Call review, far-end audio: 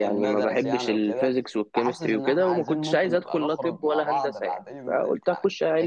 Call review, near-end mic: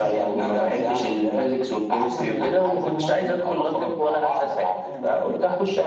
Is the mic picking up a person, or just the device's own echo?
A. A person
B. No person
B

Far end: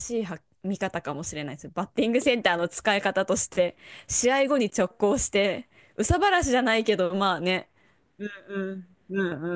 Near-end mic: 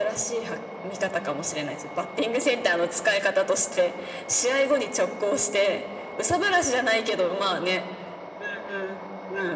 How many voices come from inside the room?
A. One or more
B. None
B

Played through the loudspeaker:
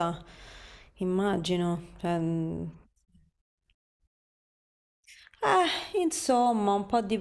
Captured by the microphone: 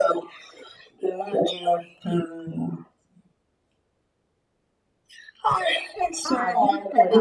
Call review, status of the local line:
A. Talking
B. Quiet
A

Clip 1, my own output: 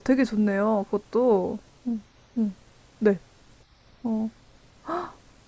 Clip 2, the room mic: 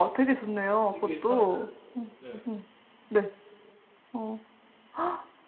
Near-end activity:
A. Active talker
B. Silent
A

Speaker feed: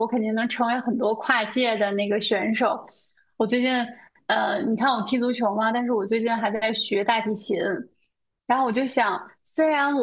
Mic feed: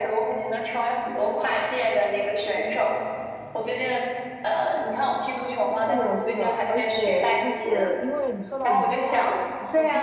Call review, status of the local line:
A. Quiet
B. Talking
B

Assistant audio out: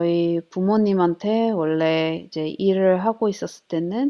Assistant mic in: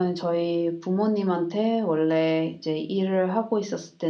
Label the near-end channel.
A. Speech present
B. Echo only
B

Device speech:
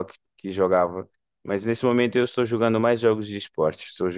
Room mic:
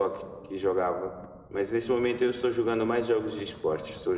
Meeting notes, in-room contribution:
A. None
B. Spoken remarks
A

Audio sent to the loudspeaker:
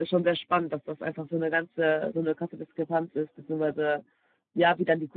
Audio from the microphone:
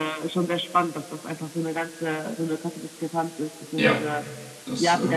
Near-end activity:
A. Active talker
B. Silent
A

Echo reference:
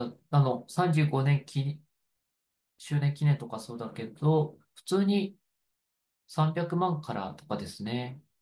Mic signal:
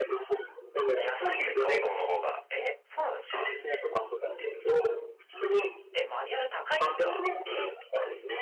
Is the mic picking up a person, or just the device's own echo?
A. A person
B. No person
A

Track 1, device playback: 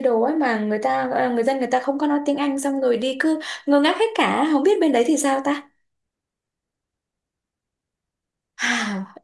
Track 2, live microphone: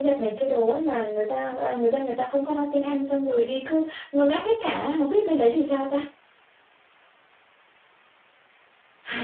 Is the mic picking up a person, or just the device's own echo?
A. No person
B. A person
A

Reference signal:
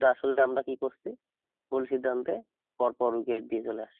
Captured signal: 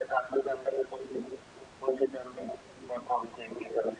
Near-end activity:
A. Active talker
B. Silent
B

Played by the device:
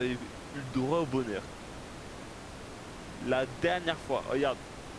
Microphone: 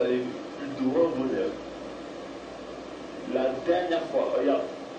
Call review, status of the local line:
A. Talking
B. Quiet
B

